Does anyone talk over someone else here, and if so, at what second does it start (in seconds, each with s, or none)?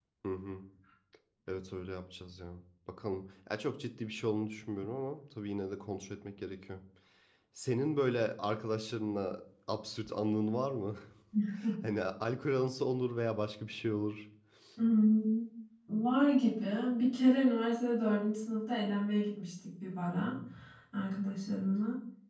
none